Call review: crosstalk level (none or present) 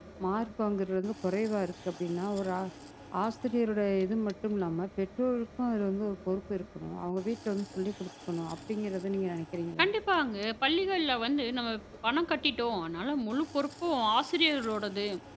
none